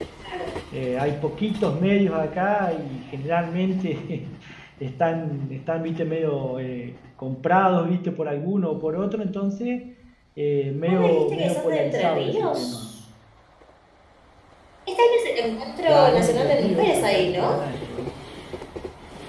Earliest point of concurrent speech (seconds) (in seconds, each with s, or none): 10.9 s